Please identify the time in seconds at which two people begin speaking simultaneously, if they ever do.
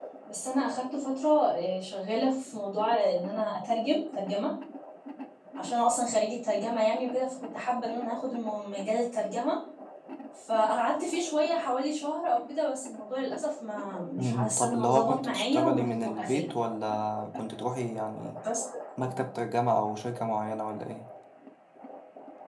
14.2 s

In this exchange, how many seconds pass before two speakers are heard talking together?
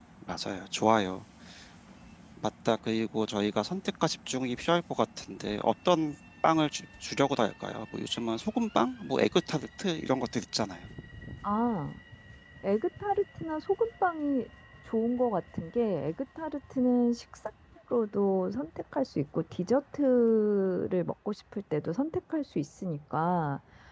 none

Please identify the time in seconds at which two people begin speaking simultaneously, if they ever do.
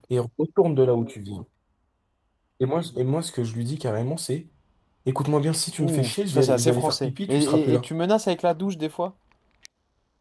5.8 s

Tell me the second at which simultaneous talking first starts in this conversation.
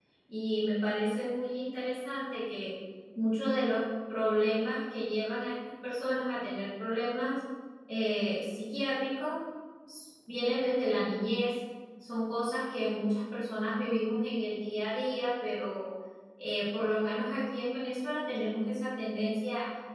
none

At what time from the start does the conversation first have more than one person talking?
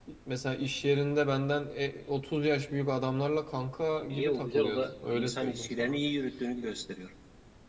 4.1 s

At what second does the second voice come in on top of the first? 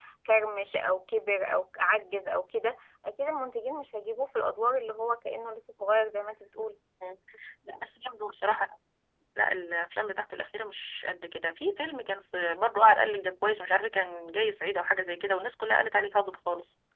none

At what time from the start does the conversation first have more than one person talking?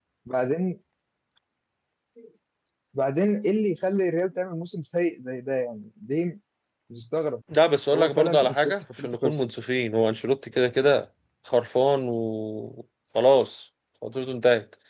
7.9 s

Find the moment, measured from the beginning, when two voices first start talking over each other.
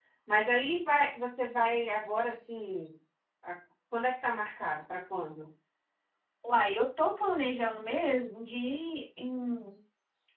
none

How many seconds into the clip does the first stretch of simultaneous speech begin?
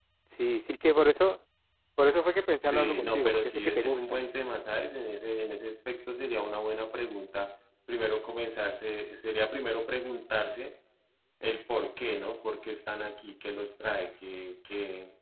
2.6 s

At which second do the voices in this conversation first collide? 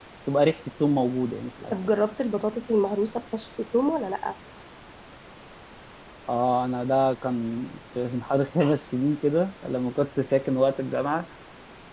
none

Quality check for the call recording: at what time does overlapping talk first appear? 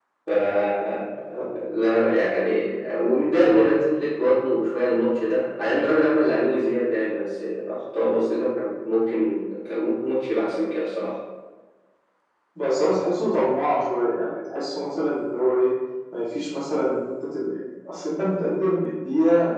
none

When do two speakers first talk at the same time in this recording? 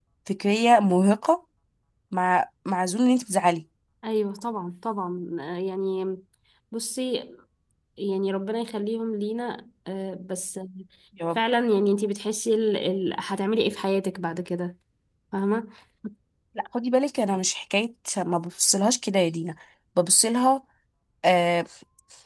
none

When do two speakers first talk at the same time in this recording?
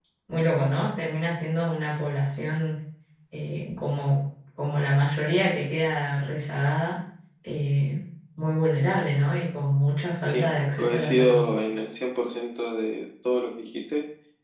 10.3 s

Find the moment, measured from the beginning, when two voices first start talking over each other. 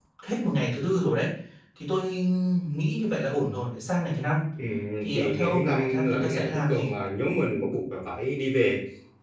5.1 s

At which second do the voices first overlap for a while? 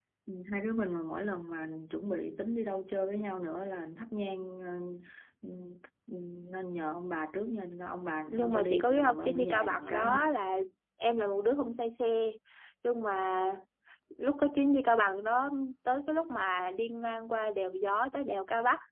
8.3 s

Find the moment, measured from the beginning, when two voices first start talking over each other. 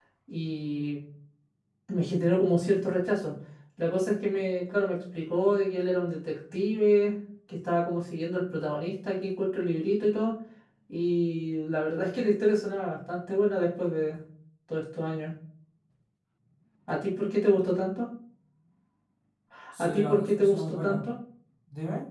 19.8 s

